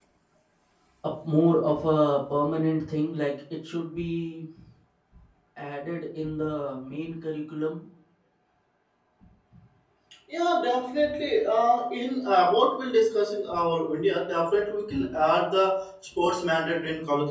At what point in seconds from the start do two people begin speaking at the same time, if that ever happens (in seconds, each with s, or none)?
none